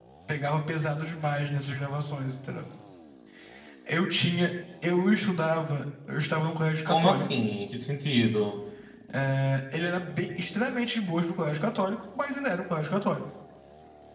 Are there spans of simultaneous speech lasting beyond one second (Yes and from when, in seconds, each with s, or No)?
No